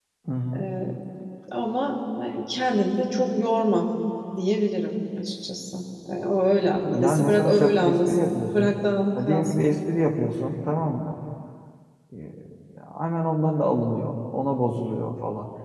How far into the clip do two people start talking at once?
6.9 s

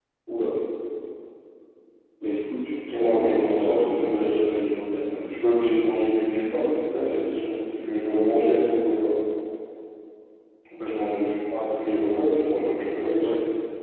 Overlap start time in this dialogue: 2.9 s

